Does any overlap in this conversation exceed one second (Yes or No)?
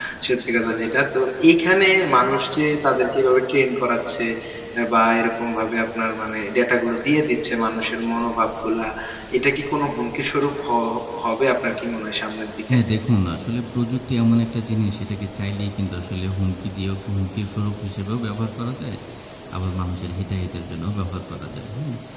No